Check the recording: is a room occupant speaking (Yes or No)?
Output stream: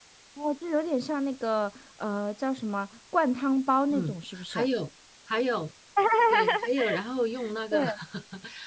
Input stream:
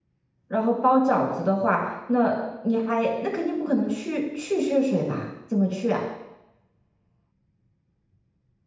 Yes